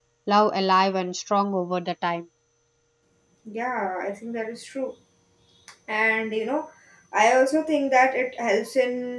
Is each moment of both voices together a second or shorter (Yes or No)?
Yes